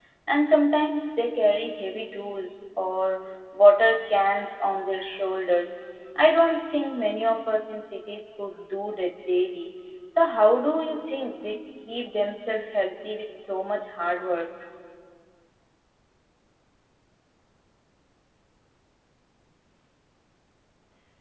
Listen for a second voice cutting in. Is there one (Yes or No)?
No